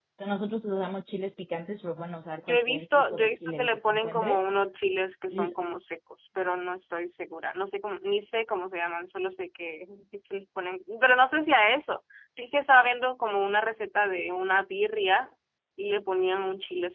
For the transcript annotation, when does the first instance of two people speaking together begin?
2.5 s

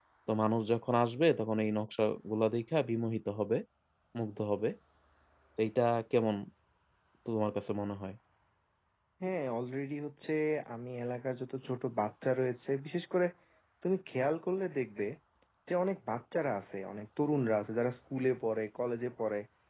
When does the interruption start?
none

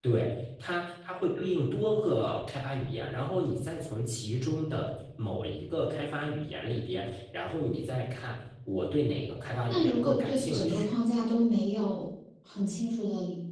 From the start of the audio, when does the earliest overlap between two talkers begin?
9.7 s

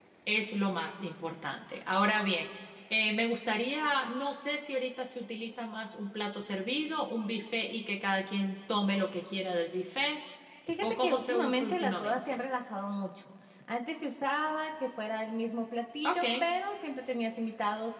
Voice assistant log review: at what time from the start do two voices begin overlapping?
10.8 s

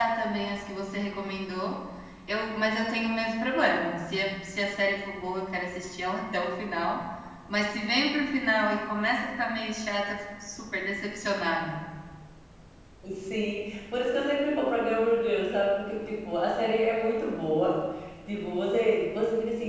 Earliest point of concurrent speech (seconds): none

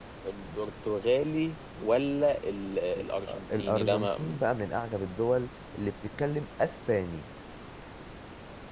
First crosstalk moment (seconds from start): 2.9 s

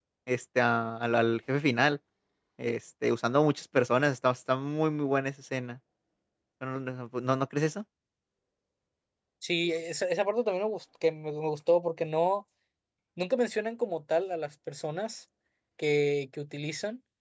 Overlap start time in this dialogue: none

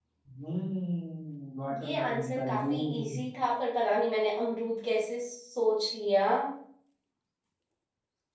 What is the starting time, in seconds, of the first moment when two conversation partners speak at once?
1.7 s

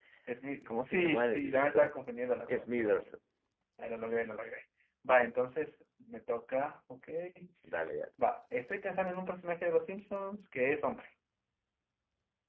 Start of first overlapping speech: 0.7 s

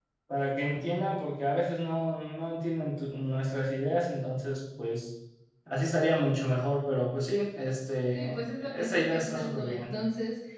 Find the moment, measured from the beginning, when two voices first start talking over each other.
8.1 s

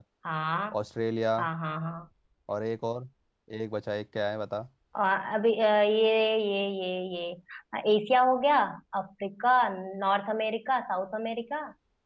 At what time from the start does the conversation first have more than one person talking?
none

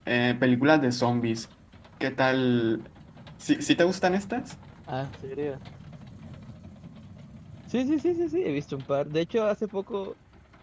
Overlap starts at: none

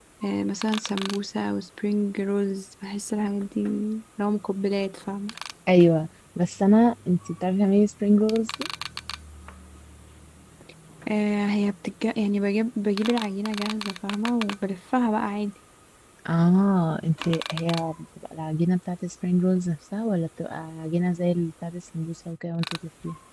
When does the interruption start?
none

